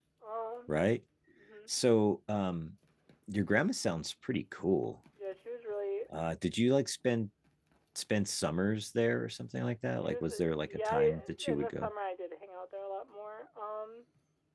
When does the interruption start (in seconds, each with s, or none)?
10.0 s